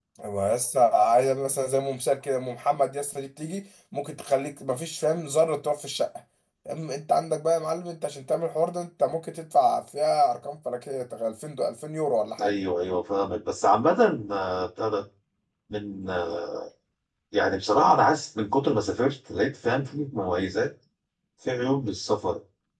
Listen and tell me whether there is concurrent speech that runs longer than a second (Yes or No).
No